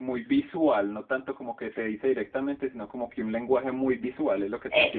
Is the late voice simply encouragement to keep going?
No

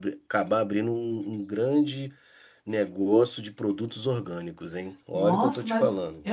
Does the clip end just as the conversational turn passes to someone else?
Yes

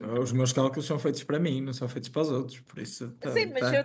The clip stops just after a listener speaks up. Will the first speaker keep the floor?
No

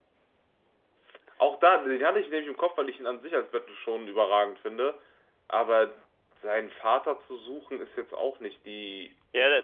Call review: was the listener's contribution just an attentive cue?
No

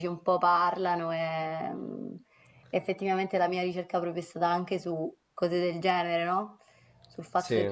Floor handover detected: No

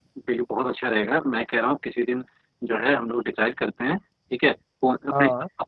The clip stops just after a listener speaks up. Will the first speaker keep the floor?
Yes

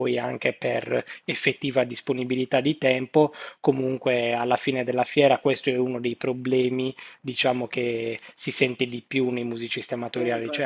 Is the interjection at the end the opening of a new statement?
No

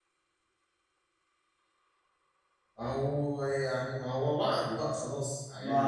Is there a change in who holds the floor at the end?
Yes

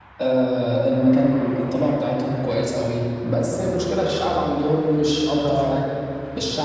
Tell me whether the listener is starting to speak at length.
No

